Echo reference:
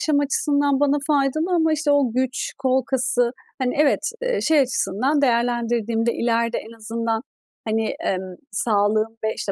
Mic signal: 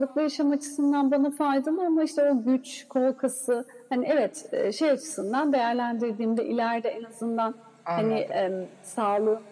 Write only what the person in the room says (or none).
Anladım.